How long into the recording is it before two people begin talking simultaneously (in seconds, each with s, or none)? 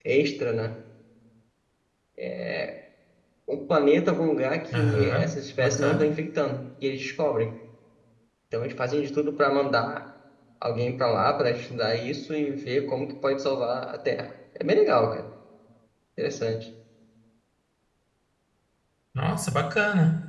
4.7 s